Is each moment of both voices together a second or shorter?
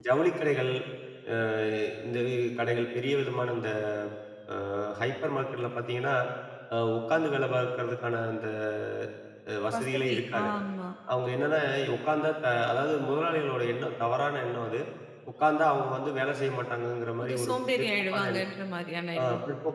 No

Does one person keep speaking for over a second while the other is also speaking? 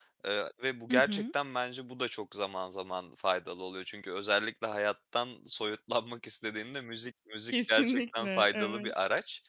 Yes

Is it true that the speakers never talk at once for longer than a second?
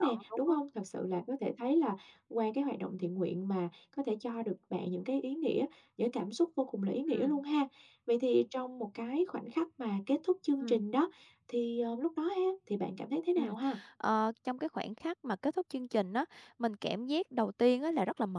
Yes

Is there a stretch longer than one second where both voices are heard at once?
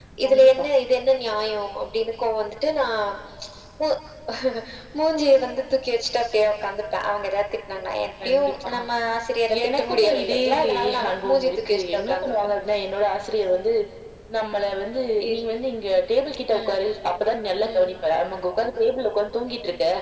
Yes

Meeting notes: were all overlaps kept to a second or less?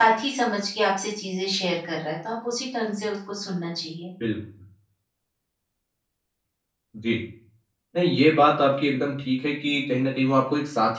Yes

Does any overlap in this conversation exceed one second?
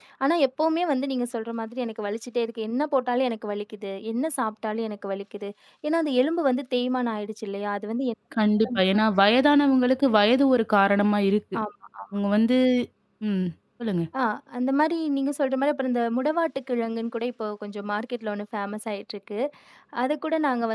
No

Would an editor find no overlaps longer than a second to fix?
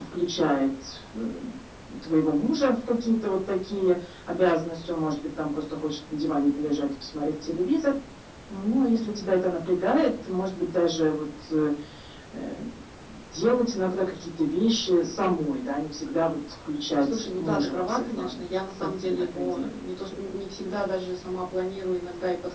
No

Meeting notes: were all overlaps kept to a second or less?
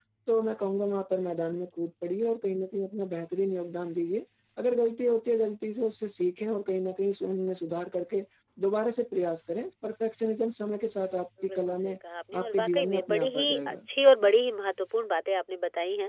No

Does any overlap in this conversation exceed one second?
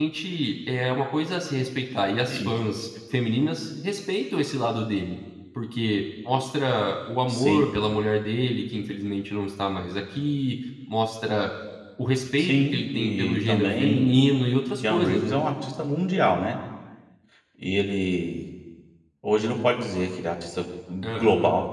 Yes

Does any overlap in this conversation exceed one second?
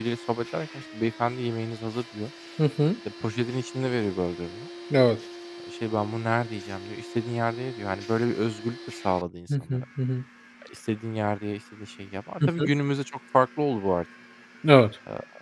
No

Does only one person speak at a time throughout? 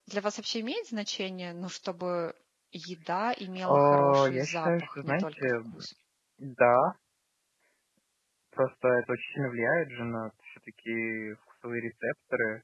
No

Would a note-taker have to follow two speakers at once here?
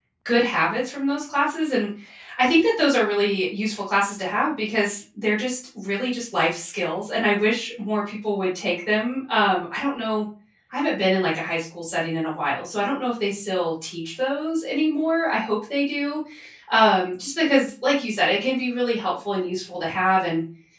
No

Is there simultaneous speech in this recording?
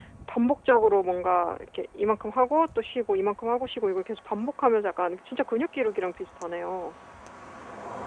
No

